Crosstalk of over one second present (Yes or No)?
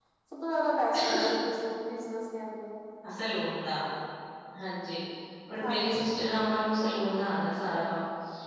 No